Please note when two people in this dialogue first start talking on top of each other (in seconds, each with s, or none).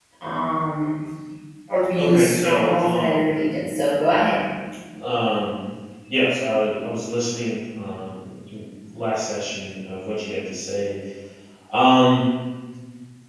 2.0 s